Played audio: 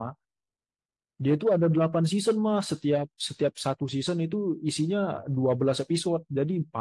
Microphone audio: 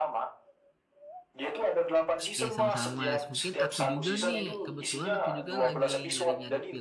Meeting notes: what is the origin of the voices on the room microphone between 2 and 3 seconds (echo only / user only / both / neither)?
both